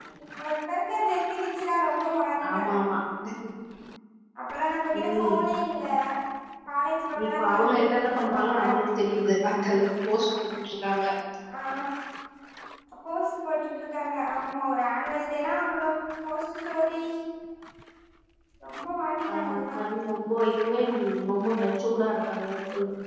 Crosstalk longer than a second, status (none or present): present